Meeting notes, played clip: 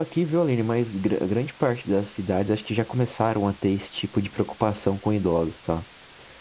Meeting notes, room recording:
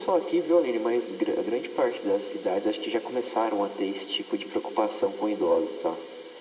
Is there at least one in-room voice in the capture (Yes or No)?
No